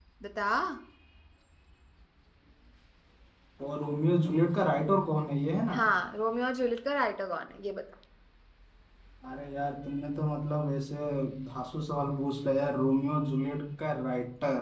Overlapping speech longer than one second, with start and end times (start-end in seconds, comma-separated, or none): none